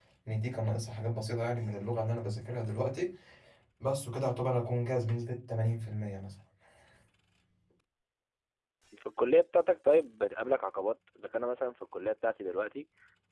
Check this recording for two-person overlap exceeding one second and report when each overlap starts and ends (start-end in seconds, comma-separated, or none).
none